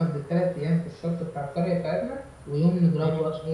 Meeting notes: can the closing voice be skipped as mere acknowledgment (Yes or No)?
Yes